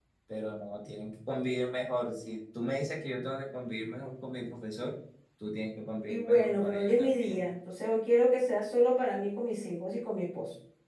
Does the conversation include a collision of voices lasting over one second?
Yes, from 6.1 s

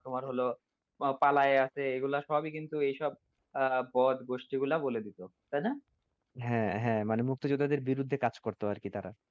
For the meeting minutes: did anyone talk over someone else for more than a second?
No

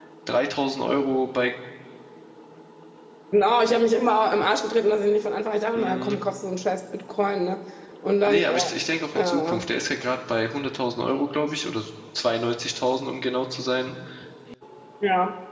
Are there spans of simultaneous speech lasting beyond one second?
No

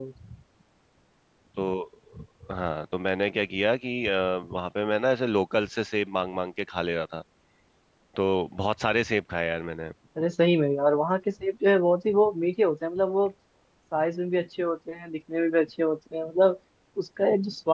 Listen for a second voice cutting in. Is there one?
No

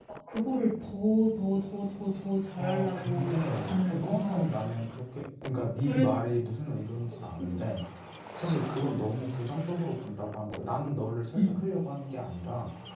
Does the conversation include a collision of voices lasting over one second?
Yes, from 2.6 s

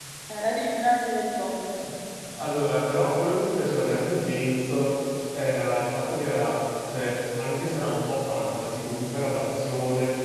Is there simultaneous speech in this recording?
No

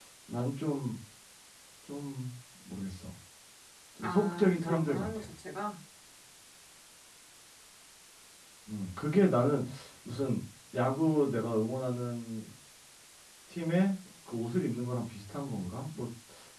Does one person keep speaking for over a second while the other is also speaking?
Yes, from 4.0 s

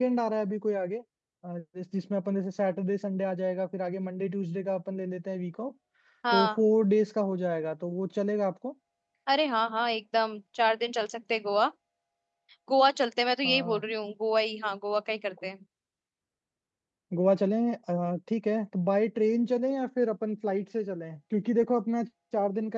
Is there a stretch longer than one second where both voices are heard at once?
No

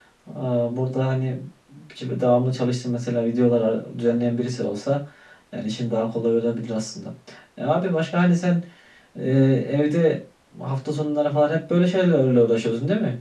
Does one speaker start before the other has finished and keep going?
No

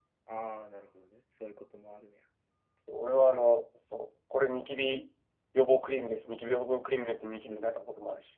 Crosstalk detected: No

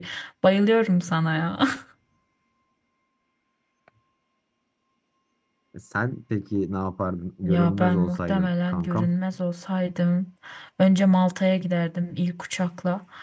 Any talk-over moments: Yes, from 7.4 s

